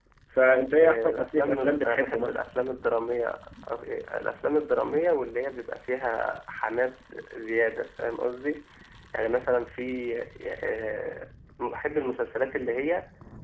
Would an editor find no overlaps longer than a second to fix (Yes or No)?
No